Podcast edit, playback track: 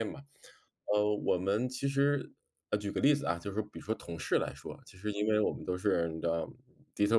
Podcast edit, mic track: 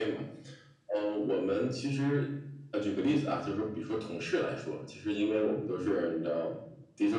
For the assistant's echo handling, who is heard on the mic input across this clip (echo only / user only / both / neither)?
echo only